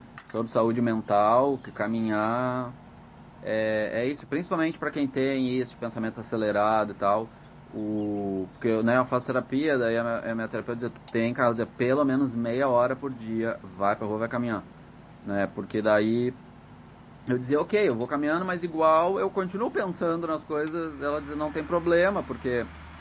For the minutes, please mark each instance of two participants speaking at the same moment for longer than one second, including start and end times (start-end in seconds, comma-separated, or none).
none